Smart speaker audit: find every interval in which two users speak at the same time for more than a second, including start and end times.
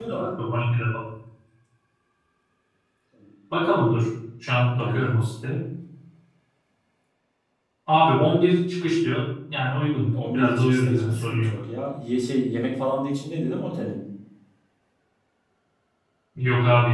10.1-11.6

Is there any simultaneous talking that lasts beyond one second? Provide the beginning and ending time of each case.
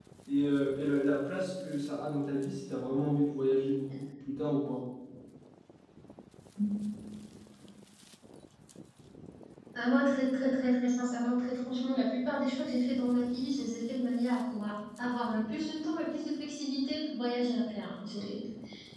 none

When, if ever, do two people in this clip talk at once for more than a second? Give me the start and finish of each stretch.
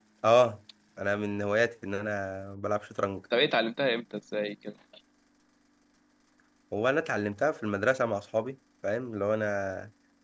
none

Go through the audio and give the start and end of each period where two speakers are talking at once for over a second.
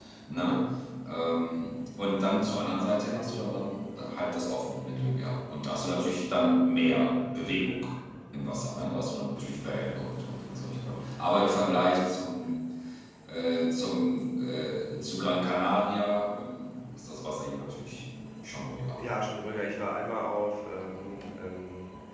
none

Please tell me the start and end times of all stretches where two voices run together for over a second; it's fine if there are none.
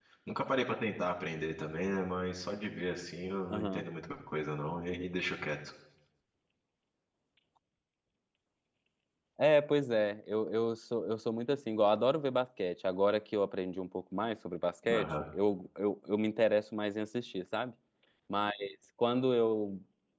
none

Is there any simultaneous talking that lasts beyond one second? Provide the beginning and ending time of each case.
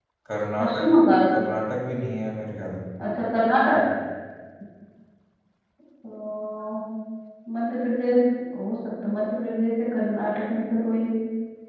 none

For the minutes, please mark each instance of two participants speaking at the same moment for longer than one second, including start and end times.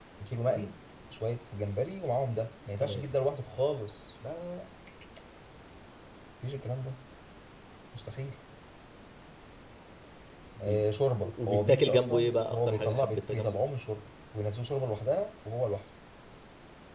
11.5-13.6

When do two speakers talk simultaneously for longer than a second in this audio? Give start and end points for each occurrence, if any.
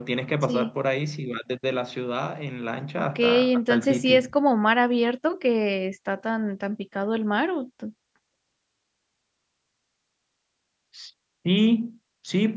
3.0-4.2

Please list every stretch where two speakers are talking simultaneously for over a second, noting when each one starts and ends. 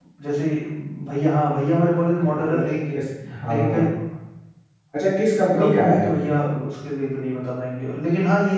none

